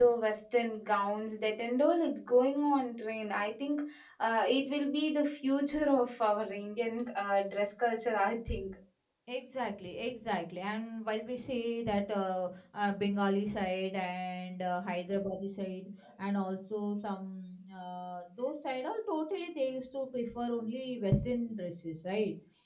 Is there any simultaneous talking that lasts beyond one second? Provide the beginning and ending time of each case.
none

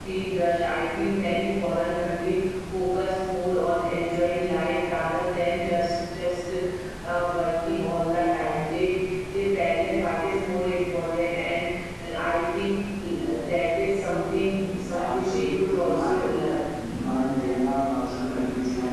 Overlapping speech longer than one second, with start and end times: 14.9-16.3

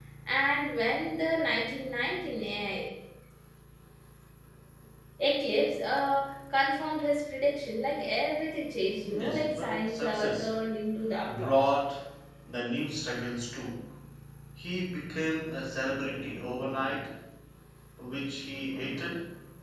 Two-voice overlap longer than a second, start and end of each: 9.2-10.5

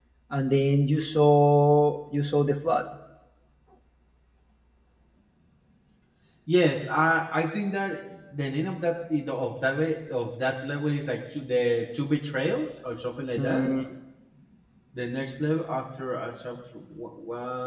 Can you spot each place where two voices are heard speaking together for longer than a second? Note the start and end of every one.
none

